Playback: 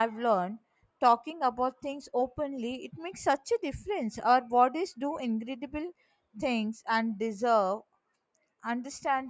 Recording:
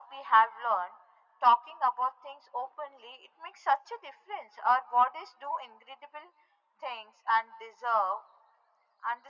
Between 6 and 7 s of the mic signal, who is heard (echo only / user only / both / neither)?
echo only